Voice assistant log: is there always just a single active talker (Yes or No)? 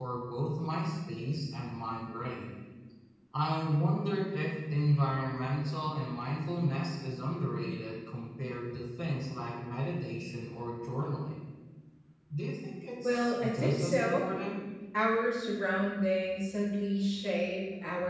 No